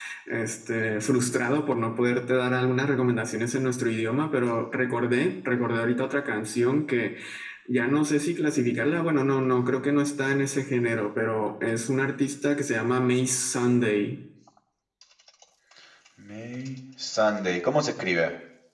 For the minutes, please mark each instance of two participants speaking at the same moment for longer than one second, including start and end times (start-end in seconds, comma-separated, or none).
none